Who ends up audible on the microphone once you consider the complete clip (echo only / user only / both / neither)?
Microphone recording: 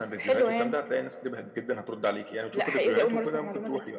echo only